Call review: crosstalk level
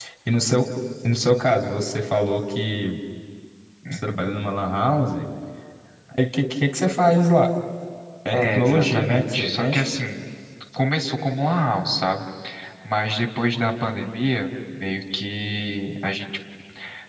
present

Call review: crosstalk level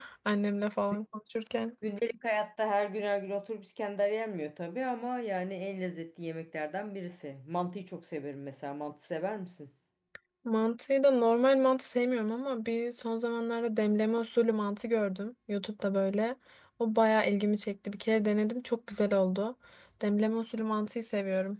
none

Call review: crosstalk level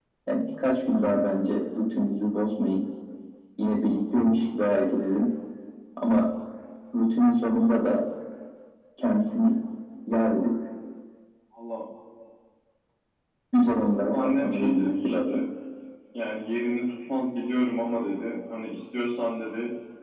present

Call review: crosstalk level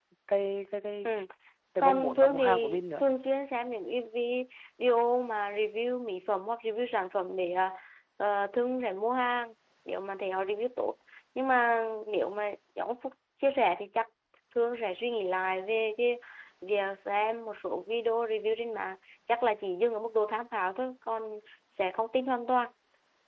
present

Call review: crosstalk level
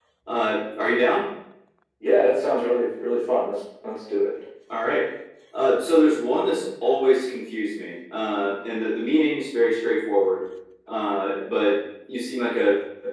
none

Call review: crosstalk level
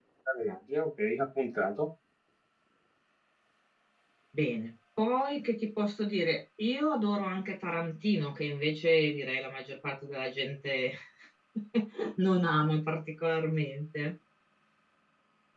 none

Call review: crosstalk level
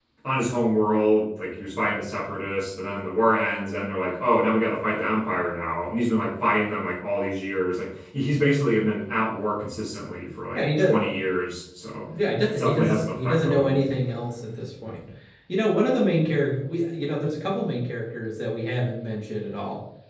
present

